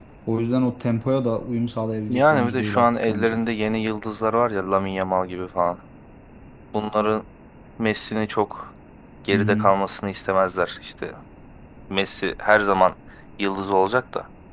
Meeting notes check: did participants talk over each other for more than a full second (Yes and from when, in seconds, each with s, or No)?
Yes, from 2.1 s